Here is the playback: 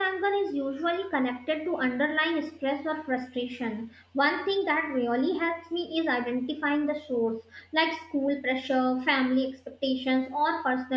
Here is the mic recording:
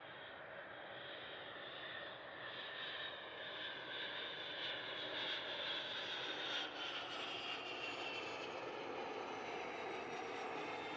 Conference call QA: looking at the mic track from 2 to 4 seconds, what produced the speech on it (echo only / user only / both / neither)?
neither